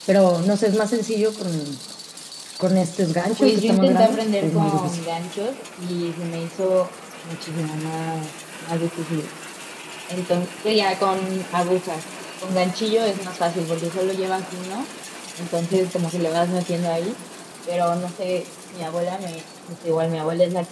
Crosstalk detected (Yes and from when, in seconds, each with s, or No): Yes, from 3.4 s